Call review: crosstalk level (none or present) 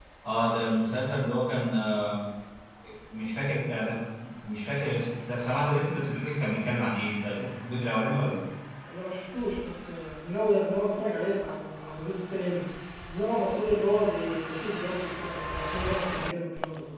none